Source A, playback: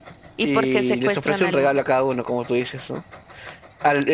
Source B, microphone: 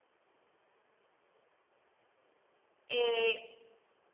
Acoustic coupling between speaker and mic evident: No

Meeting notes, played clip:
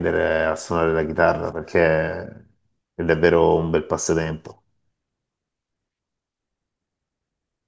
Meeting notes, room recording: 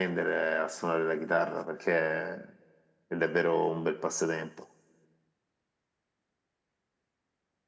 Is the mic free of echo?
No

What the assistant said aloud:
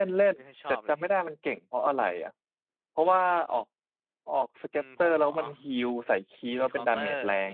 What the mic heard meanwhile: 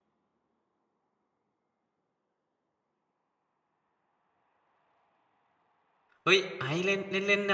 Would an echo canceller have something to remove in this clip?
No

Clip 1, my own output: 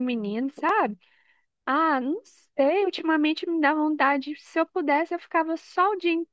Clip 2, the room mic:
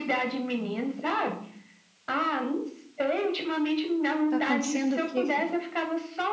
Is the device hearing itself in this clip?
Yes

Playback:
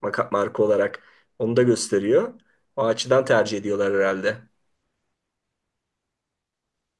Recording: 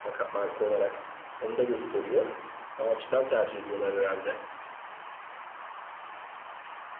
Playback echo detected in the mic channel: Yes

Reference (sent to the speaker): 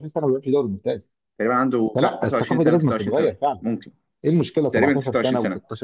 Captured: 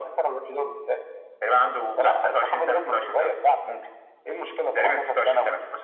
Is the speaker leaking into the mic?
Yes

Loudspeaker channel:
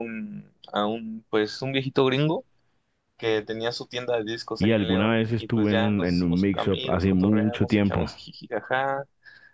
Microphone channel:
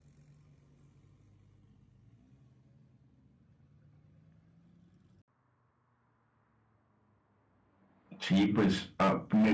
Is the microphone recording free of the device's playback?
Yes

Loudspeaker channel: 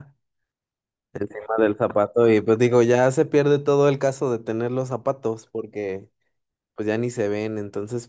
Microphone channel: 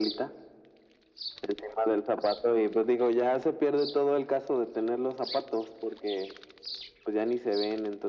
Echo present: Yes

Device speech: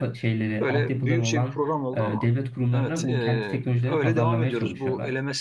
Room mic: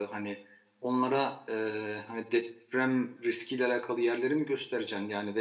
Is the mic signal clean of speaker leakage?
Yes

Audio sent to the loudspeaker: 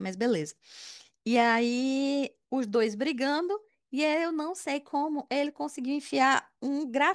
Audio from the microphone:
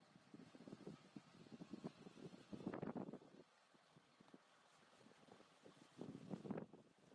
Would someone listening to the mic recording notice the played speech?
No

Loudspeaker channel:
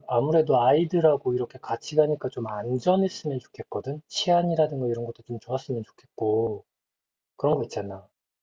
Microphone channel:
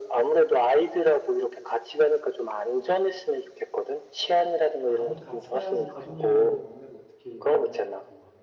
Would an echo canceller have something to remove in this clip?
Yes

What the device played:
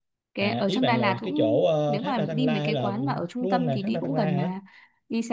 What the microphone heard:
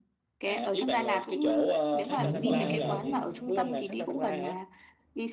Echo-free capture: No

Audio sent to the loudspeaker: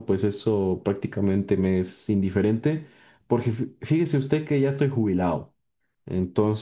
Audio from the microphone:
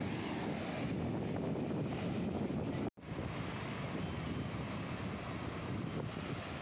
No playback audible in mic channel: Yes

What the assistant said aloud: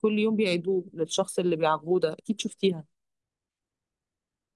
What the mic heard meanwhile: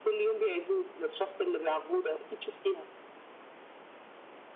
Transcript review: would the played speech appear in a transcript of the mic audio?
Yes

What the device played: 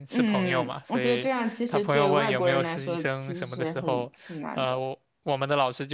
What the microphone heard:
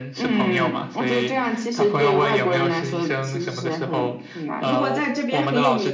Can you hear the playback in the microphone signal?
Yes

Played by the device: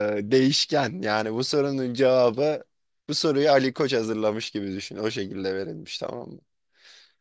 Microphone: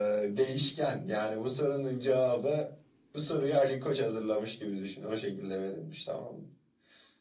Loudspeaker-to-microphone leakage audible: Yes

